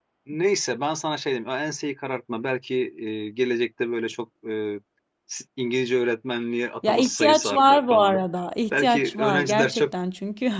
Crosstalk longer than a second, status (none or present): present